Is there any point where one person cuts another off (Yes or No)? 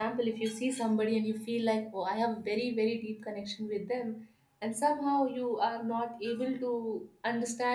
No